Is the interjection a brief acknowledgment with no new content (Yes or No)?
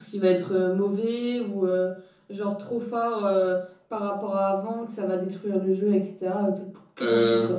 No